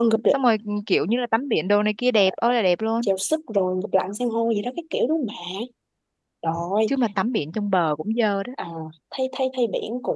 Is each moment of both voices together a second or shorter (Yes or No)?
Yes